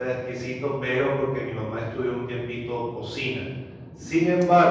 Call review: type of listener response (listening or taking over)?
listening